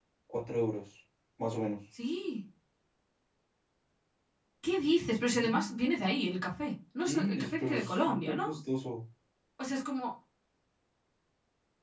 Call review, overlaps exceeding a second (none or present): present